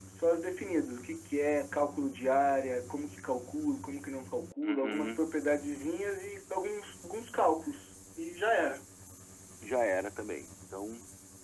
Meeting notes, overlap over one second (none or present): none